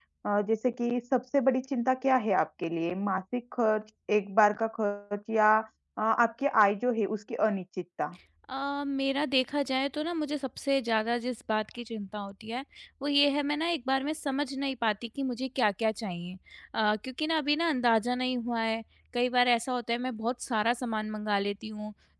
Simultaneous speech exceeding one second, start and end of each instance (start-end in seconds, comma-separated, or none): none